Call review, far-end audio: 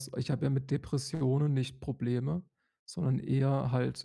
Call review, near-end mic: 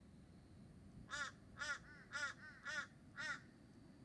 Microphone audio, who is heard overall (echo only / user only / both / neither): neither